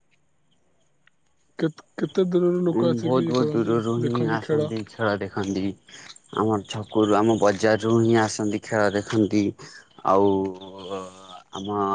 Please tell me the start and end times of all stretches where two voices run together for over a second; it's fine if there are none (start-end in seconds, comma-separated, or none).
2.8-4.7